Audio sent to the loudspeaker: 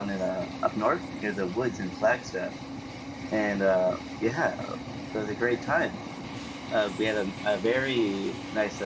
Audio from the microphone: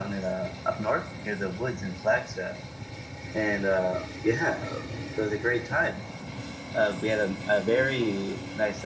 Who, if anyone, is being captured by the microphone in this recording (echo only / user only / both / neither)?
echo only